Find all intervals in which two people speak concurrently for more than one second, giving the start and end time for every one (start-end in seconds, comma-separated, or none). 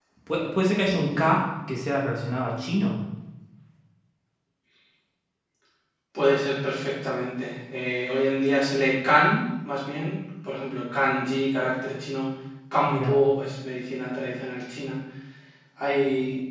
none